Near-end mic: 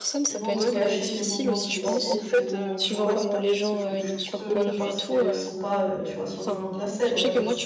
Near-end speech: present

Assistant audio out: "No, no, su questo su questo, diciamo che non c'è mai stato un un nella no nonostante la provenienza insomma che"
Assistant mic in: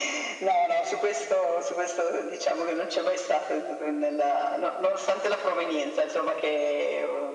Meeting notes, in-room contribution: none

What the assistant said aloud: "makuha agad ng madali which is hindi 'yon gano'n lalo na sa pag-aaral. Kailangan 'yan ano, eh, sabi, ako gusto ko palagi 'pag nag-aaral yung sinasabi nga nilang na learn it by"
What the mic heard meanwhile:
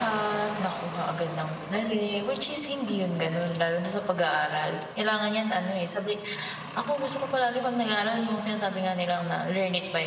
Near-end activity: none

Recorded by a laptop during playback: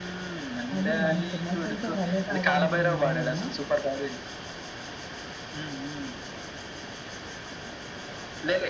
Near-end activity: present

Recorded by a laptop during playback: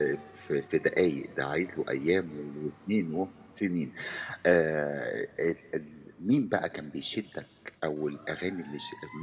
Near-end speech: none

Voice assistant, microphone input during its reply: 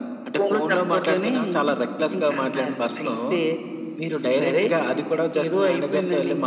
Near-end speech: none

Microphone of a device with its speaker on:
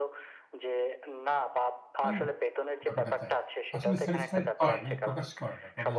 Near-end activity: present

